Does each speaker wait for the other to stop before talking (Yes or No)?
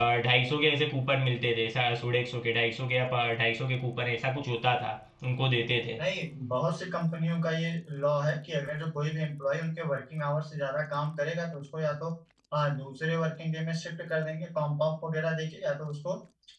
Yes